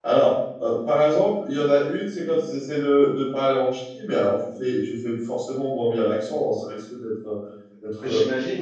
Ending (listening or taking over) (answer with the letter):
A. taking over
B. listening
B